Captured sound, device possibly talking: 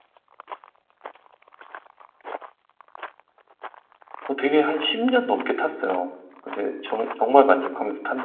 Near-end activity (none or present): present